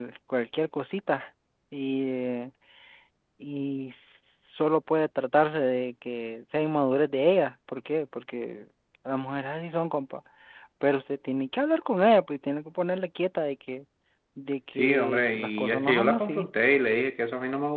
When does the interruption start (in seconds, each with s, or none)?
14.7 s